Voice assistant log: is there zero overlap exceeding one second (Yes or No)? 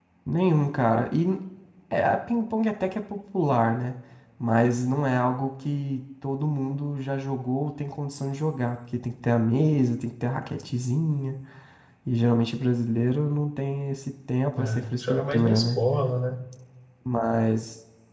No